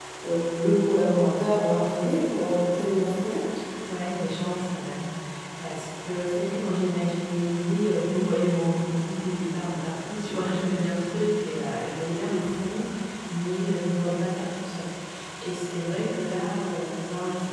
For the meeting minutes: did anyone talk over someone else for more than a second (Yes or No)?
No